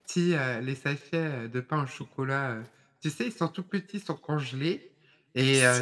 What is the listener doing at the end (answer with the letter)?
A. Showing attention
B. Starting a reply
A